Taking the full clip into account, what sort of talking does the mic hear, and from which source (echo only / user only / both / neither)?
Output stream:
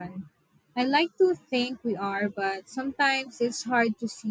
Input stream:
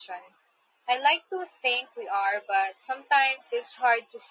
echo only